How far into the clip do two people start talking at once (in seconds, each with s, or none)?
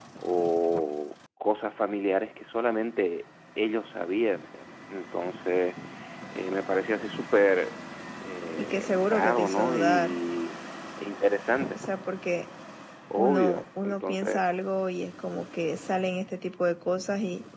8.6 s